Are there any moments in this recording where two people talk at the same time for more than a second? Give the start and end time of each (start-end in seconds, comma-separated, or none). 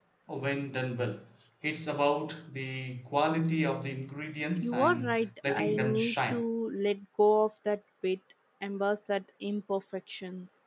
4.5-6.4